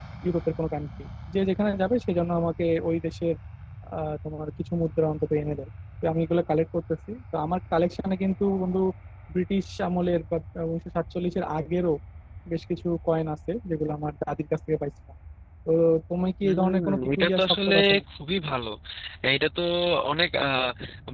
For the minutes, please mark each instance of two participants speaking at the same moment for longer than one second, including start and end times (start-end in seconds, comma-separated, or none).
16.4-17.7